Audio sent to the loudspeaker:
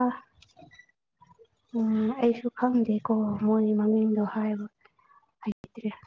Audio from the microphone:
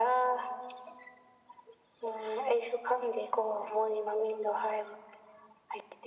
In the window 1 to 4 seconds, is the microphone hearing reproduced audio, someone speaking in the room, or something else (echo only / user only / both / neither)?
echo only